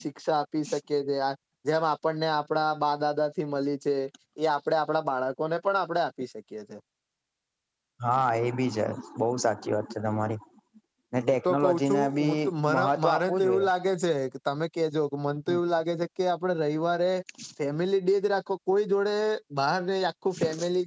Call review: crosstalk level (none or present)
present